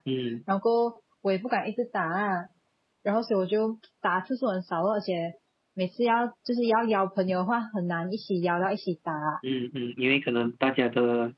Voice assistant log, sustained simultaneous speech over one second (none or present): none